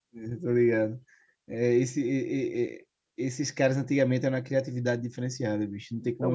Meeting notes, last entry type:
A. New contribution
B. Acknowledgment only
A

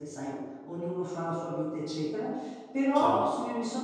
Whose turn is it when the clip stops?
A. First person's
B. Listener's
A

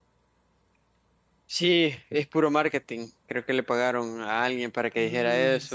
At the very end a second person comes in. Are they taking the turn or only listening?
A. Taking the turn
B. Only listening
A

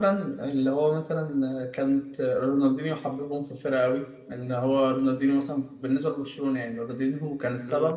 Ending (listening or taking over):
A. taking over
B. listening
B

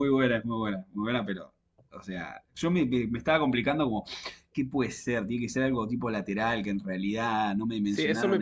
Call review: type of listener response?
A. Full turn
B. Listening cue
A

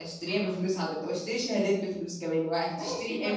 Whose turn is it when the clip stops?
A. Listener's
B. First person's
A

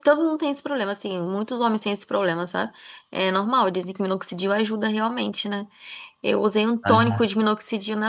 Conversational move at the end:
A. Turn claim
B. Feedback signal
B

